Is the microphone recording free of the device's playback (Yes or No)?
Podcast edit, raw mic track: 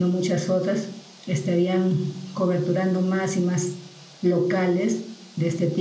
Yes